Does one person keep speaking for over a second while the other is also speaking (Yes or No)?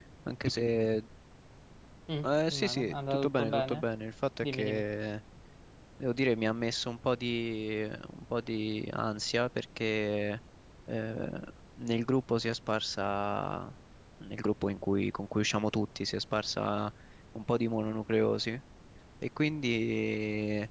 Yes